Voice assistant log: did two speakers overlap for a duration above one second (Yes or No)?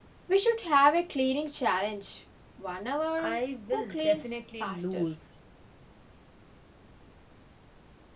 Yes